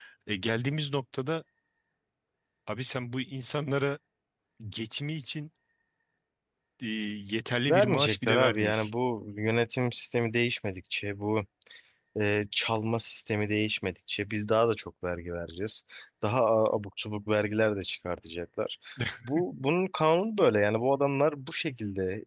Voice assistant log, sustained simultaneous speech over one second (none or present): present